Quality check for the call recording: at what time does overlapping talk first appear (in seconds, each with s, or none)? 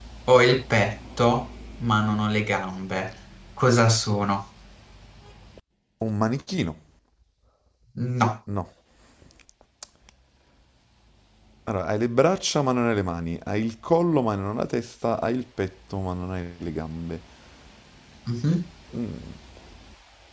none